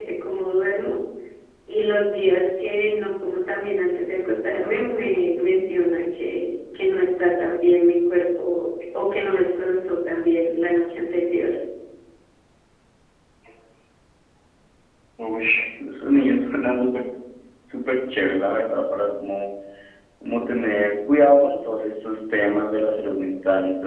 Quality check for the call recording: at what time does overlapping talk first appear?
none

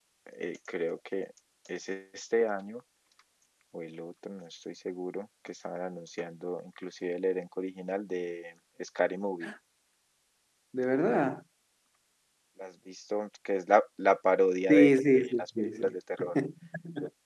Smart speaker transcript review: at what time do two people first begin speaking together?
15 s

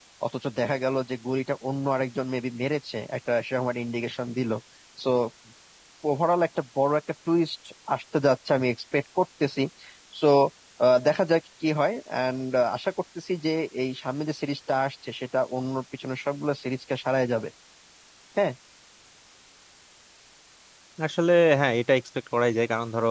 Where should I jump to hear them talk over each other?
none

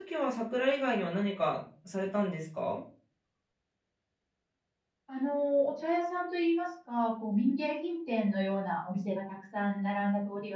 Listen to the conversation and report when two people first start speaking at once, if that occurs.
none

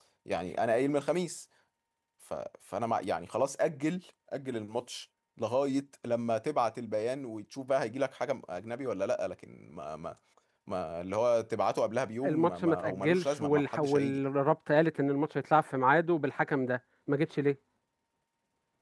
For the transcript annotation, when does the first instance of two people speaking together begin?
12 s

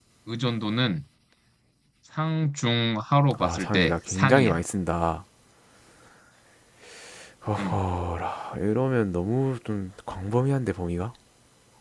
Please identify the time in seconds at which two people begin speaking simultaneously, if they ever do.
3 s

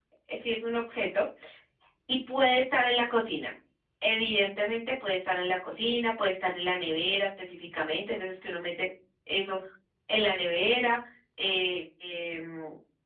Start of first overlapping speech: none

